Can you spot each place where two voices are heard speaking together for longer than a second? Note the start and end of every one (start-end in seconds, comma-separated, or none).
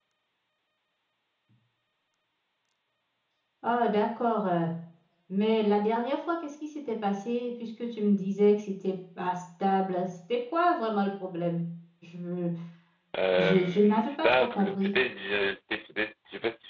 13.4-14.9